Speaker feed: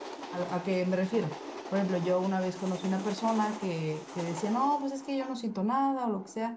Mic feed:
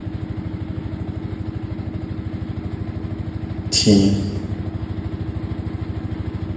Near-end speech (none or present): present